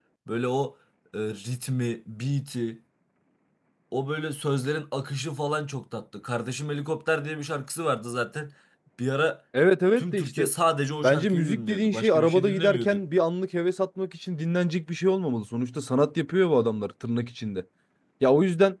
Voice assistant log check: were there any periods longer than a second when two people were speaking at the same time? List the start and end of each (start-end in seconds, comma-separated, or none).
11.0-13.0